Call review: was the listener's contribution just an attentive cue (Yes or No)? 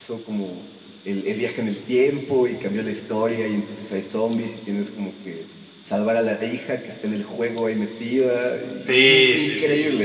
No